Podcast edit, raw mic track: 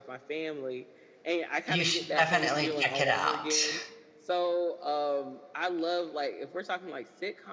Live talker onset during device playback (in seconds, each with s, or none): 1.7 s